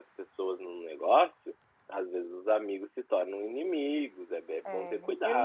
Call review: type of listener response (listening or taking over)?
taking over